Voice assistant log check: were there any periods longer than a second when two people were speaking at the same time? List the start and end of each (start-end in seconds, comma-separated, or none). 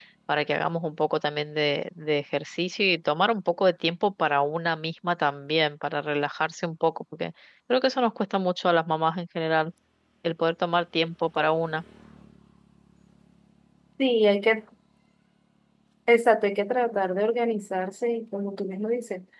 none